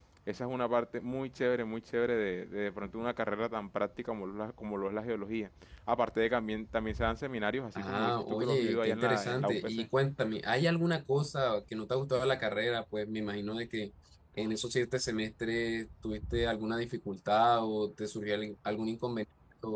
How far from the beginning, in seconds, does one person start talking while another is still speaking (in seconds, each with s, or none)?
7.8 s